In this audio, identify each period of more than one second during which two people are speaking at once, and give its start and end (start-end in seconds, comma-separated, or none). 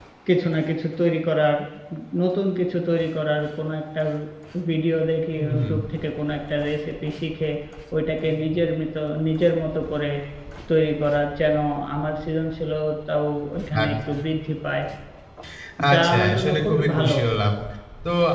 15.9-17.2